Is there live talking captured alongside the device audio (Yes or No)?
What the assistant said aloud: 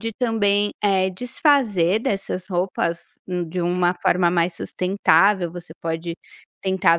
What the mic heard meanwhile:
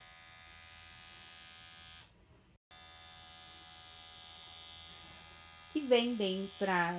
Yes